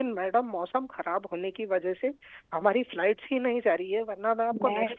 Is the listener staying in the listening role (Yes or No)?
No